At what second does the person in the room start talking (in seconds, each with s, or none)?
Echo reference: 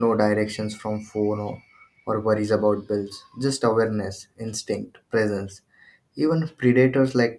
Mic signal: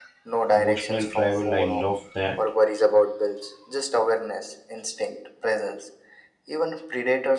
0.5 s